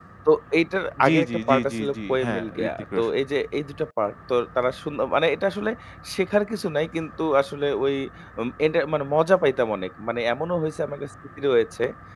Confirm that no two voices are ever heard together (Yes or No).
No